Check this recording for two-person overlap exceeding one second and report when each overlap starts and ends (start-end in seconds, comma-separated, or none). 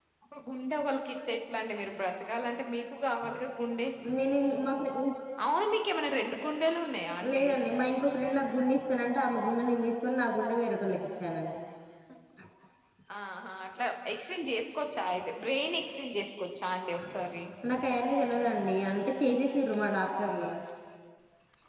none